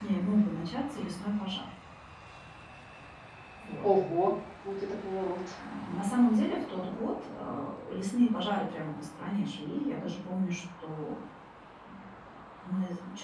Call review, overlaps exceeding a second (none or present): none